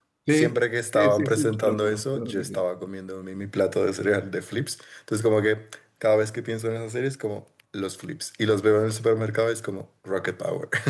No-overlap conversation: No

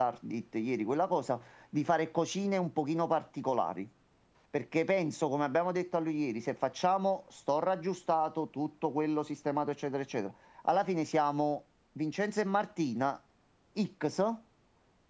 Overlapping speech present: No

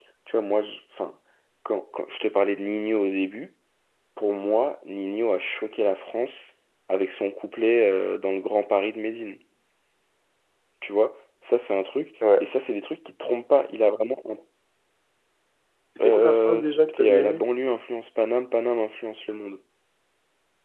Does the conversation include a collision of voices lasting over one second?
Yes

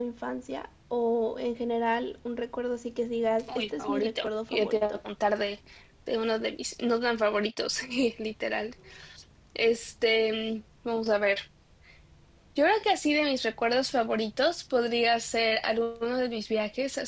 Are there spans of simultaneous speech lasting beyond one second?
Yes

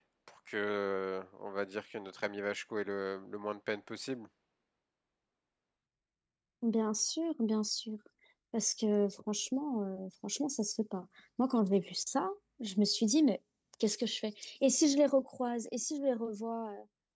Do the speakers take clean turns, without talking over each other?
Yes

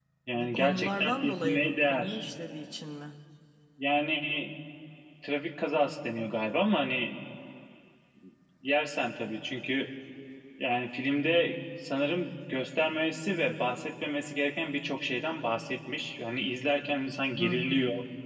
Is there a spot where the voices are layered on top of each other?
Yes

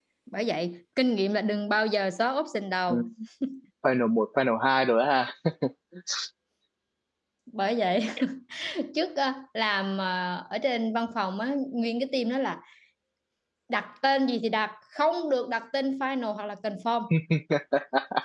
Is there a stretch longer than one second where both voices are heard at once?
No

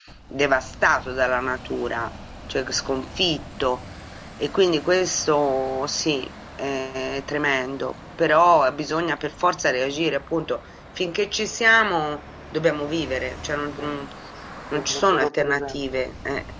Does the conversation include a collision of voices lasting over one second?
Yes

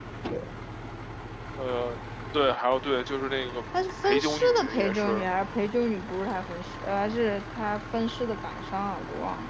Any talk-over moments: Yes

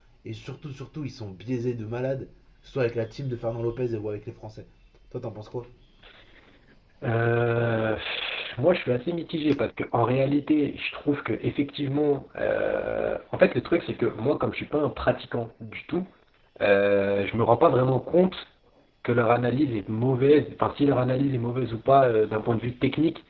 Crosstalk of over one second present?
No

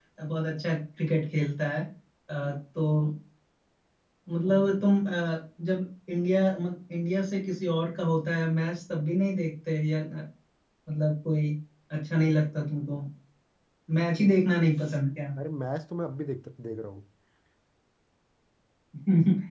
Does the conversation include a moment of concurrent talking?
No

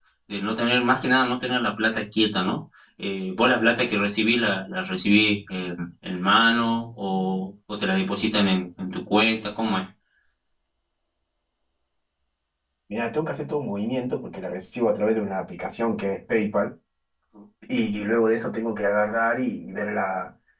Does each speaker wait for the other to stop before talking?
Yes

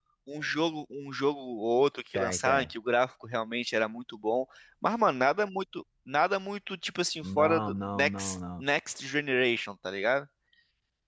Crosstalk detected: Yes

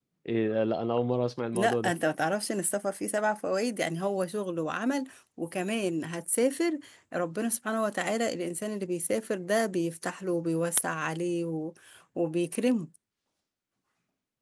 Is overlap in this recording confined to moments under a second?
Yes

